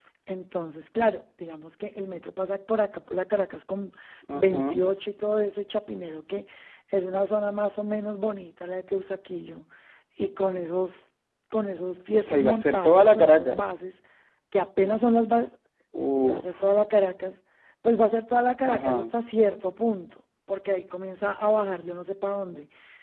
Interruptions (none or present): present